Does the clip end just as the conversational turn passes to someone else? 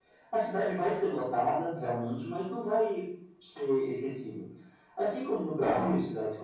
No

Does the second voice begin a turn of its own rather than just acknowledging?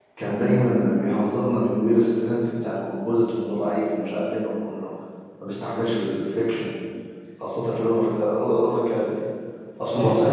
No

